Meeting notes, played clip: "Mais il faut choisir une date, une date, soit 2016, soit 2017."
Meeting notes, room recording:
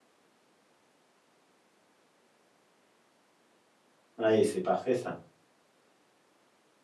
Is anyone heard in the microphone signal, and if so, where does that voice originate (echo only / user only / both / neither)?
user only